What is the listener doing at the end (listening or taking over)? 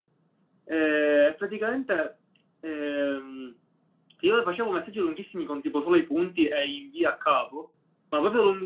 listening